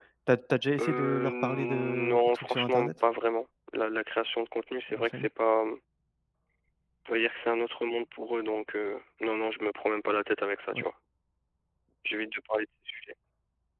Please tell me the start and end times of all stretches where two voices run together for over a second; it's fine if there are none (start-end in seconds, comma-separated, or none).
0.8-2.9